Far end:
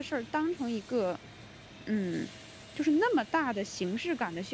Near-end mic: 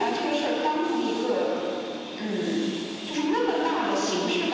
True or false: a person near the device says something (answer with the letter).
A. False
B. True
A